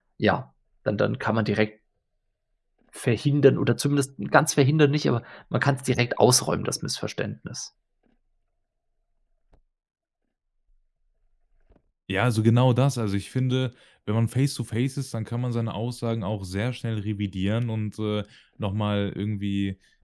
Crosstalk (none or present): none